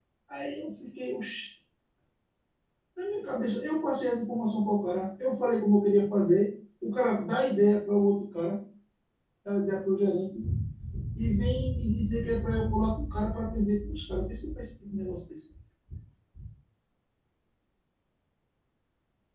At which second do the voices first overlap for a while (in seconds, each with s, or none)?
none